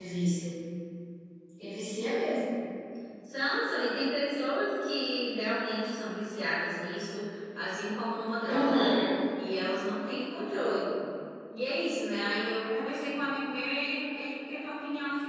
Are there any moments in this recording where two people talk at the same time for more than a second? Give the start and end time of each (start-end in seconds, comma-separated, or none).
none